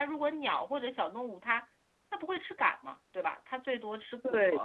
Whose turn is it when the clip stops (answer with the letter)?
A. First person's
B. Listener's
B